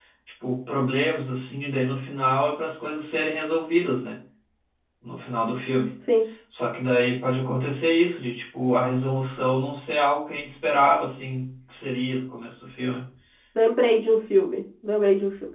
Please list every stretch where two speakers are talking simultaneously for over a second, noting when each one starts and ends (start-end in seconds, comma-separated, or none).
none